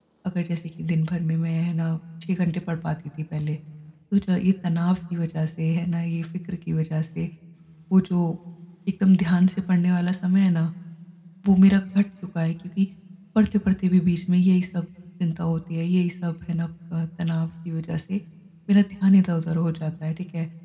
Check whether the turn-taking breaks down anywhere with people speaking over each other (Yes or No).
No